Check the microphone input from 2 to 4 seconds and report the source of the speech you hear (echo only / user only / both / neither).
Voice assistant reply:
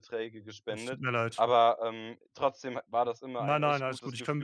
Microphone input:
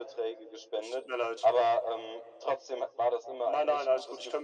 echo only